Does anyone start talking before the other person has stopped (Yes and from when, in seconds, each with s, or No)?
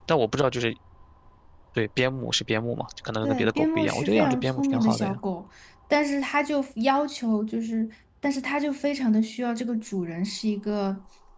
Yes, from 3.2 s